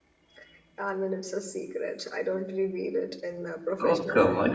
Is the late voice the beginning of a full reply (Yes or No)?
Yes